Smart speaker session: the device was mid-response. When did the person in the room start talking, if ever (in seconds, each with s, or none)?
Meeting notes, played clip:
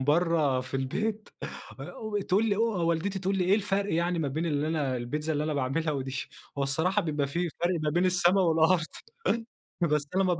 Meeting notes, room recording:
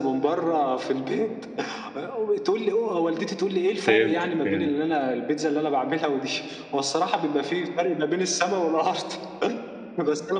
3.9 s